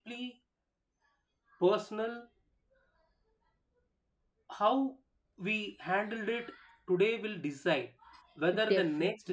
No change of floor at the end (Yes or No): Yes